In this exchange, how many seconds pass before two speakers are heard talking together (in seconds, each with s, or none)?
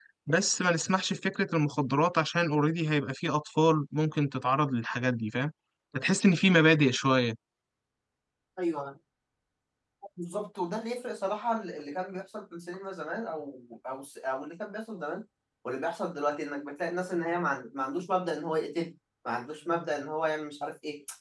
none